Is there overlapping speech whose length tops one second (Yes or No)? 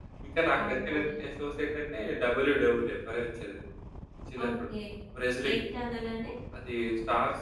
No